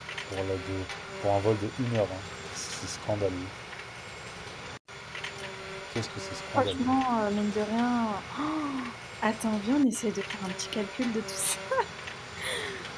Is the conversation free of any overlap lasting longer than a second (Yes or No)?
Yes